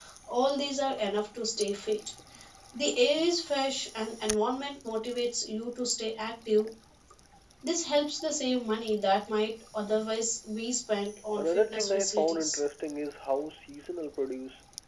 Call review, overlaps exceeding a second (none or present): present